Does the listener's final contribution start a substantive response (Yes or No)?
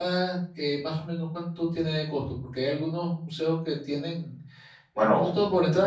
No